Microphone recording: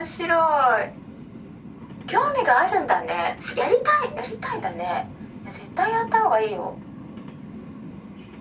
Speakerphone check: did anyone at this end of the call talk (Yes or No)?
No